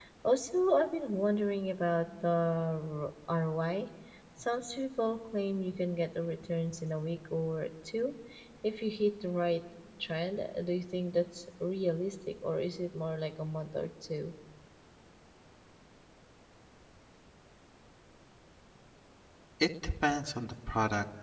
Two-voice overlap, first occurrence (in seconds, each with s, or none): none